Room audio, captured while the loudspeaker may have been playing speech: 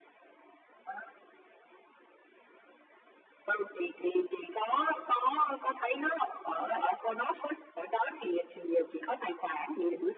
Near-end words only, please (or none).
none